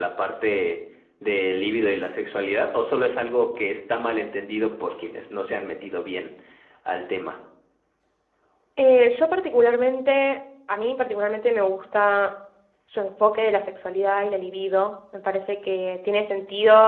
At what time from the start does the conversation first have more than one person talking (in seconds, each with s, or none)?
none